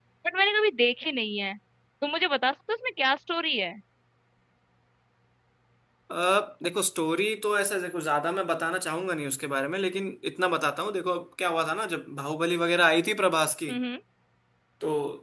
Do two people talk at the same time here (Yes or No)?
No